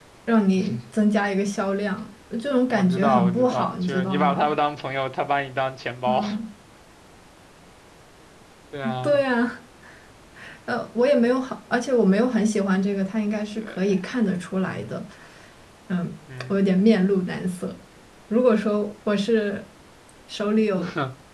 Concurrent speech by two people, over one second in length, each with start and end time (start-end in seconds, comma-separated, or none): 2.7-4.5